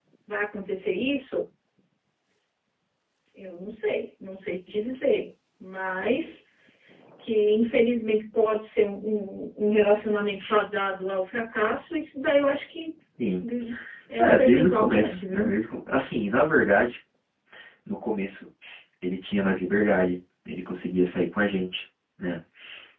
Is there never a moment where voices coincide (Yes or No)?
No